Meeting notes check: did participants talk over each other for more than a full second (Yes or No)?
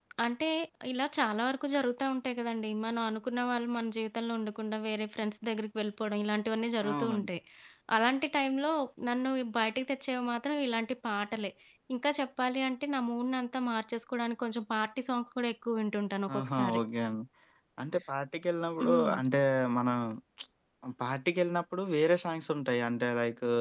No